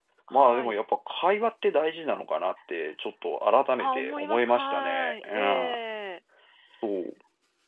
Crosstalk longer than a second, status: present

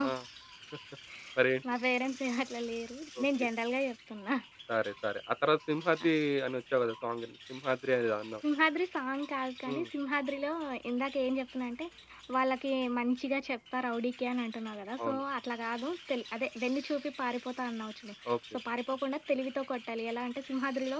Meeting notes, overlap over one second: none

